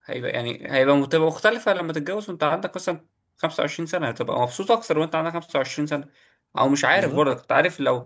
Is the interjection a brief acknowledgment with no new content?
Yes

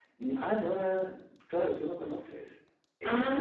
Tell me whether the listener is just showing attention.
No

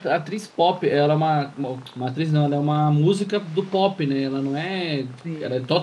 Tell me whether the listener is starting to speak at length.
No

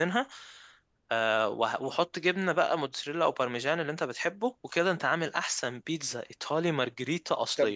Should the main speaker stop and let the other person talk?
Yes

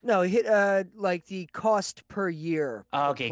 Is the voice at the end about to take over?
Yes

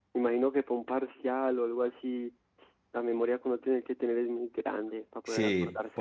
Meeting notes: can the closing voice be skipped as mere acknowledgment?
No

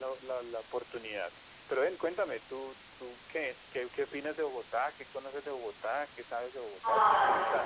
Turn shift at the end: Yes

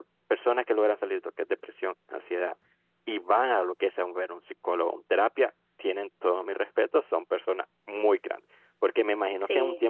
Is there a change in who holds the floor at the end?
No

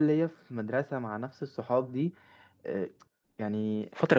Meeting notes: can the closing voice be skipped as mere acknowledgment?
Yes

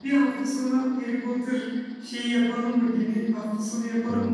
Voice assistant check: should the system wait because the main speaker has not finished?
Yes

